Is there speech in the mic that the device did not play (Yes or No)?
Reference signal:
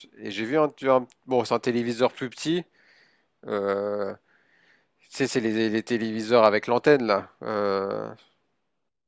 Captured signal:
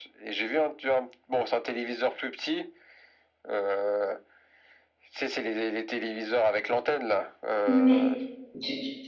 Yes